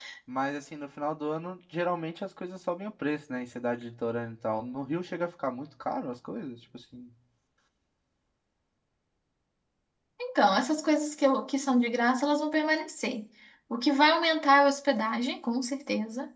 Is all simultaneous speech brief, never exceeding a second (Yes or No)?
Yes